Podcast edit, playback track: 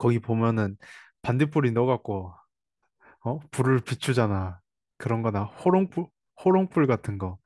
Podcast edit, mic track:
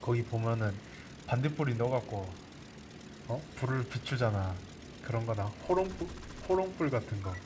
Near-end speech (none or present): none